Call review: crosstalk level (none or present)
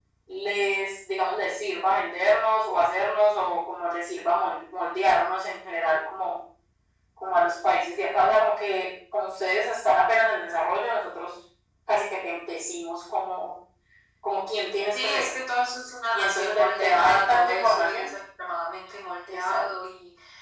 present